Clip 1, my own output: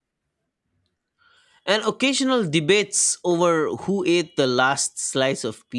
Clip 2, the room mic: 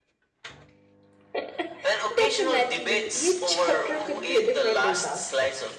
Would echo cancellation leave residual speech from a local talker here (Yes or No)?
Yes